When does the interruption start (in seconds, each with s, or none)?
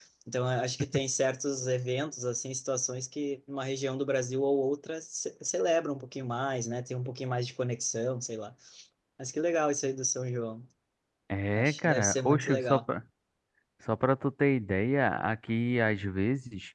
11.6 s